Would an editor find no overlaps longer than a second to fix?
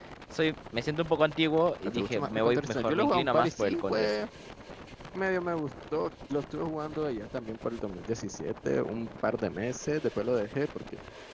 No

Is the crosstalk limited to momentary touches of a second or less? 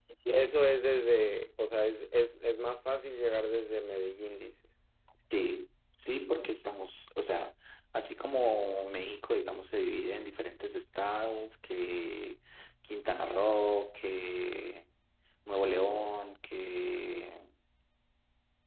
Yes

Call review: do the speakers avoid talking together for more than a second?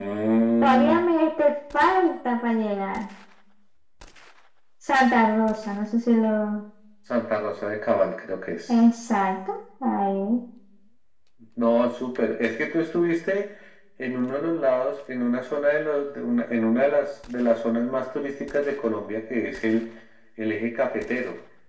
Yes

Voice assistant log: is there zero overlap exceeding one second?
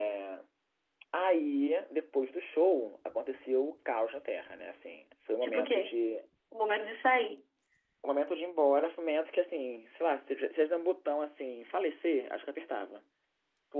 Yes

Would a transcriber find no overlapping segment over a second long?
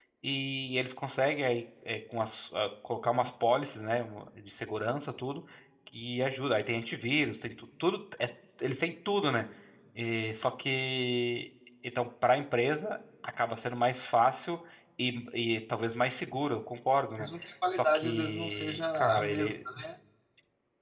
No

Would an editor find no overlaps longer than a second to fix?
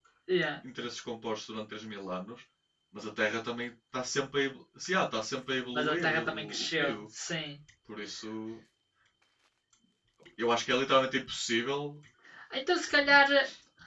No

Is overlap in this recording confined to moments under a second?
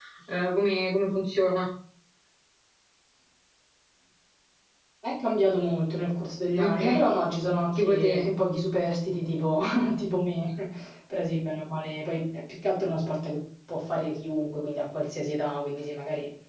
Yes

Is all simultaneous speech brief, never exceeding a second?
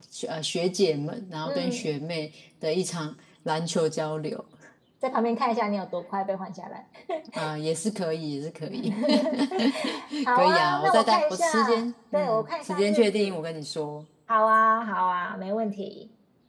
No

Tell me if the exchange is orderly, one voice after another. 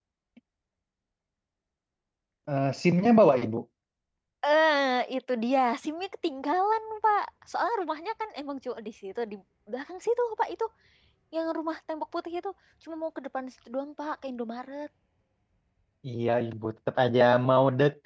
Yes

